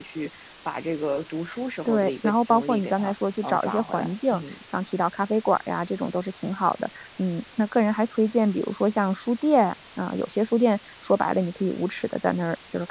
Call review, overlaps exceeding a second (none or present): present